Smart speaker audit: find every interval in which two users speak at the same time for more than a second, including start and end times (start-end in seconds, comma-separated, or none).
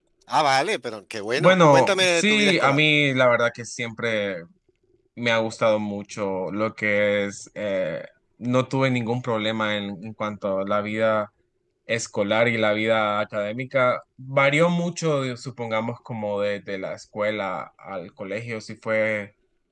1.4-2.8